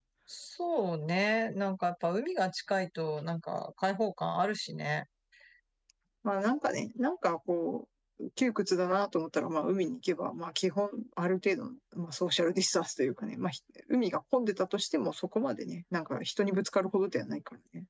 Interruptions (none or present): none